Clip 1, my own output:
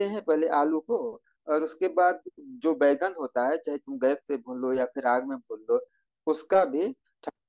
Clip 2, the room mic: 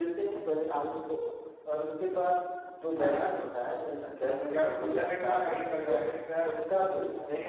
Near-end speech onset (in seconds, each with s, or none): 3.0 s